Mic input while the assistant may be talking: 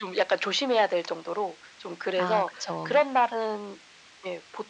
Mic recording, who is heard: both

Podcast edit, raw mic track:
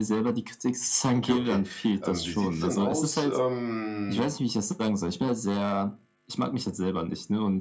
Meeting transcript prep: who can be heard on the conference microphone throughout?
both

